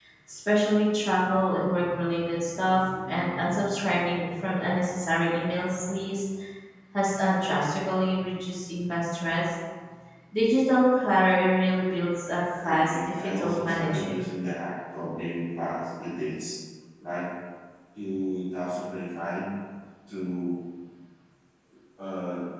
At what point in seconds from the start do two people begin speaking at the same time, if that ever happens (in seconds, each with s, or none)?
12.6 s